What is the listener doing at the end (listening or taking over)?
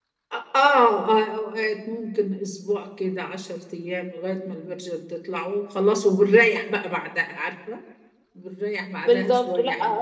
taking over